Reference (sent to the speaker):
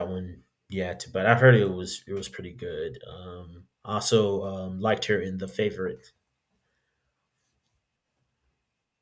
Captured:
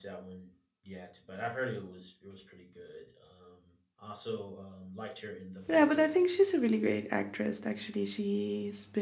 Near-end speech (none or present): present